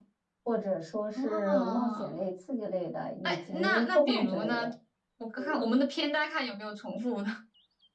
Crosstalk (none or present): present